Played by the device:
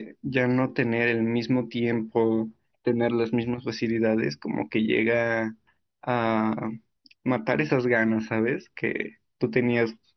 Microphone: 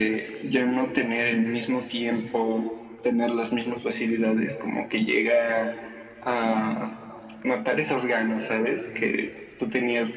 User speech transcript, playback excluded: none

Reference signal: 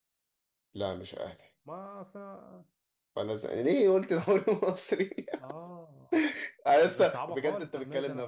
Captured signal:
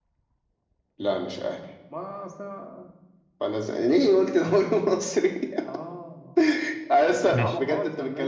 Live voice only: ماشي

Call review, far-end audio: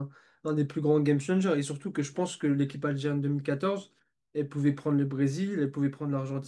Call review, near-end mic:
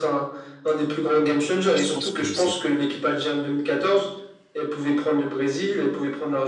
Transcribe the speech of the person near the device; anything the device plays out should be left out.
je pense que c'est

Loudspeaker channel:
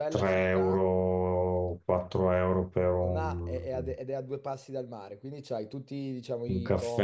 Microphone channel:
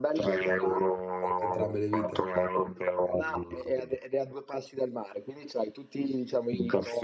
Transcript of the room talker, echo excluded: anche entrambe le vite.

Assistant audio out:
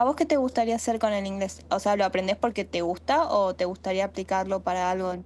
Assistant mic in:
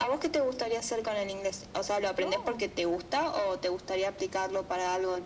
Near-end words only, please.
No,

